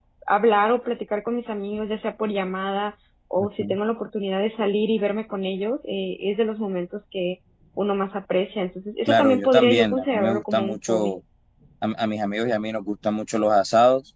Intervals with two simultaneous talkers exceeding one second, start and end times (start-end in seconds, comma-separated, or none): 9.1-11.1